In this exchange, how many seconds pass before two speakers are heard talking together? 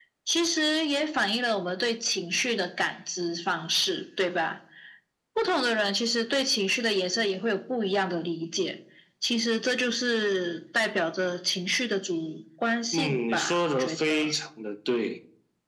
12.9 s

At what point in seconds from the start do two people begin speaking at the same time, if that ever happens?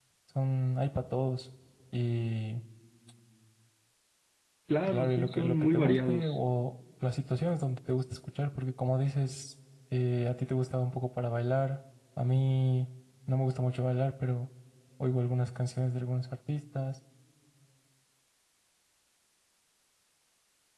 4.8 s

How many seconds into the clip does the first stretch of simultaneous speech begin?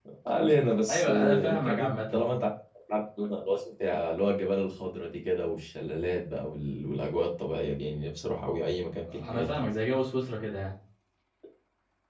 0.9 s

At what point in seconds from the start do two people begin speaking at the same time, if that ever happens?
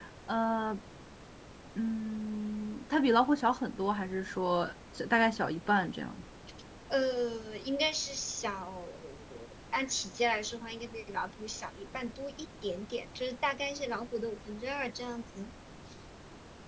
none

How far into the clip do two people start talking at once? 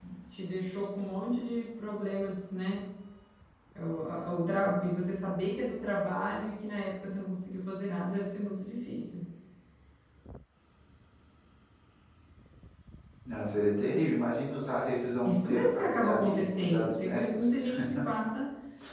15.2 s

